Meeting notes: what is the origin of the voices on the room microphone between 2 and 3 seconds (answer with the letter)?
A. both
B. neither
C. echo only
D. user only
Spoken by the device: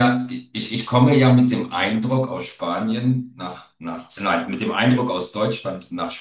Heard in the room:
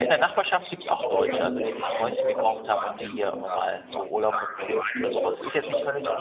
A